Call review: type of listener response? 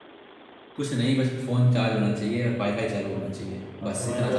taking over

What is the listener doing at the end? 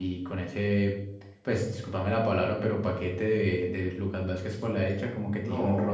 taking over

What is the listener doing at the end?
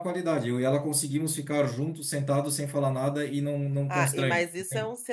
taking over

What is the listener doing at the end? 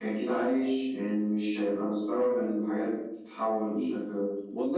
taking over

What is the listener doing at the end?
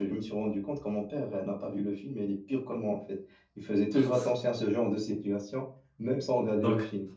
taking over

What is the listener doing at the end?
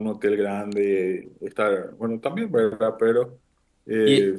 listening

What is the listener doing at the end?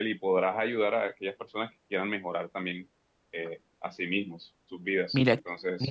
taking over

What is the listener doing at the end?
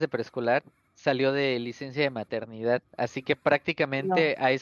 listening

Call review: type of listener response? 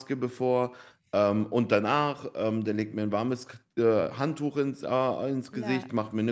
listening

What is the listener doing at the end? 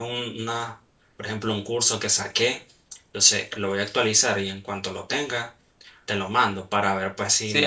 taking over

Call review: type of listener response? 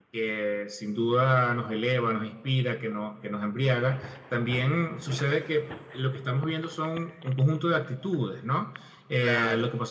listening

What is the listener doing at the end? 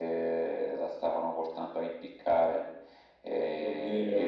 listening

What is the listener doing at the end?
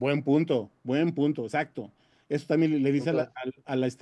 listening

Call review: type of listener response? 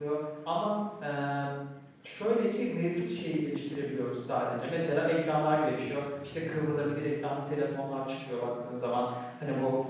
listening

